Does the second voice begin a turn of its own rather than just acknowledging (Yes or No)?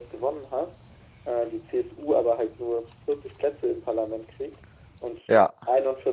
No